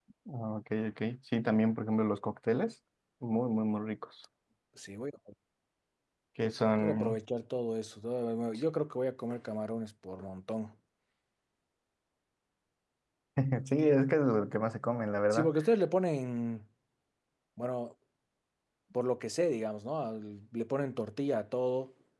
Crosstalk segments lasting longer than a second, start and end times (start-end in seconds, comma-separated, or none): none